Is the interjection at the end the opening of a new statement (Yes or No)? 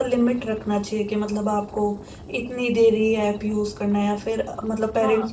Yes